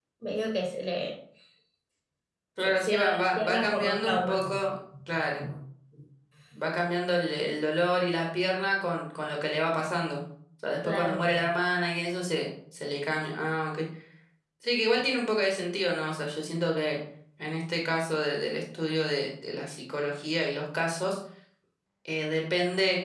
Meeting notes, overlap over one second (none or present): present